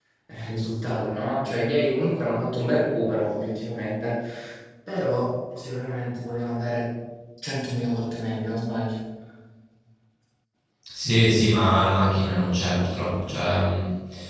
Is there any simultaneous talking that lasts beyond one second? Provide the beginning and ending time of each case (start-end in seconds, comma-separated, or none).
none